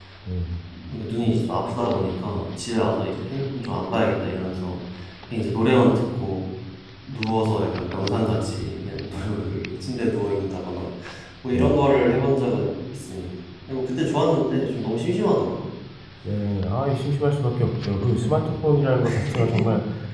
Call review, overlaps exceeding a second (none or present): none